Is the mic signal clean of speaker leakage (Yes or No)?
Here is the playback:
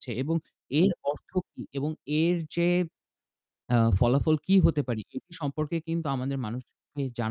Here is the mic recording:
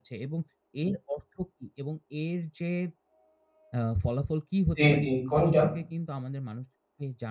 No